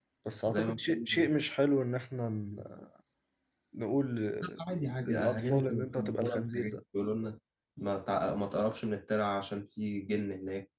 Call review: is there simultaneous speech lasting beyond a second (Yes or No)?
Yes